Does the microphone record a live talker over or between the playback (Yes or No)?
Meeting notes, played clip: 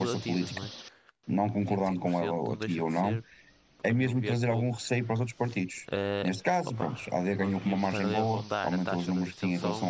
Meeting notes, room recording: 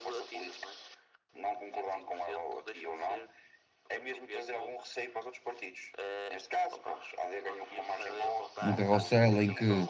Yes